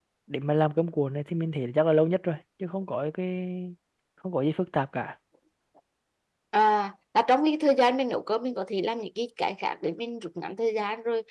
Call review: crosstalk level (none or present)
none